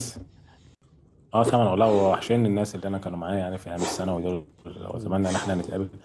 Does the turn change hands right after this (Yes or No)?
No